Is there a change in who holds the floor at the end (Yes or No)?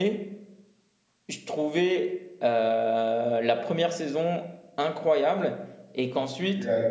No